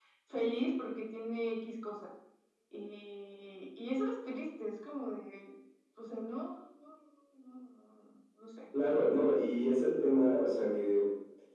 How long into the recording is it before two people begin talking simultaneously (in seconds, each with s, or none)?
none